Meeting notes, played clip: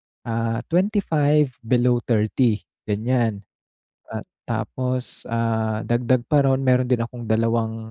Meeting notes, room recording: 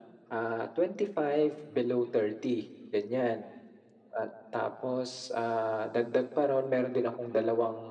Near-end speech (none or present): none